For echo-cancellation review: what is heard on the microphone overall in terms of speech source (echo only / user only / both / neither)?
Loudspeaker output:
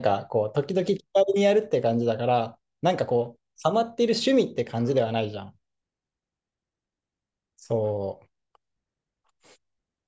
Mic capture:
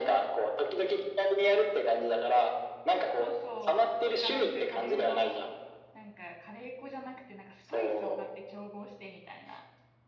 both